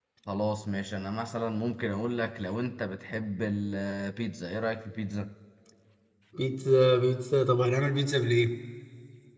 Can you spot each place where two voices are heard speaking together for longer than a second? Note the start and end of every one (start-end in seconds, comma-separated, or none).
none